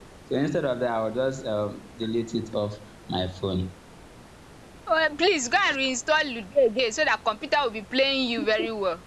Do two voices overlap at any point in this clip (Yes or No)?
No